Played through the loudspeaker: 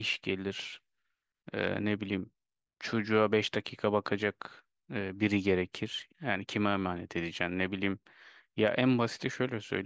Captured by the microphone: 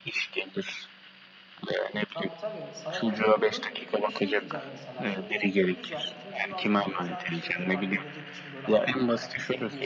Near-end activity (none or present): present